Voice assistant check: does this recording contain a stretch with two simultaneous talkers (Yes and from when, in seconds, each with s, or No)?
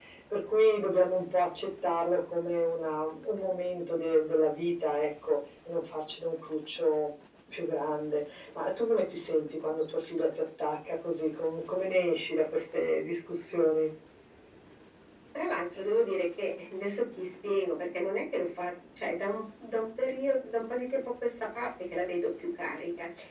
No